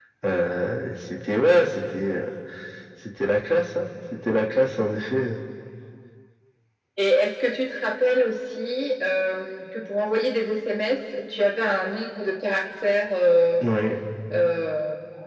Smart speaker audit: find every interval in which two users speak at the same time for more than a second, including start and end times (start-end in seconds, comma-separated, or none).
none